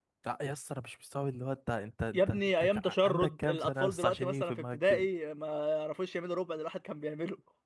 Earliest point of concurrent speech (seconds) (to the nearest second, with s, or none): 2 s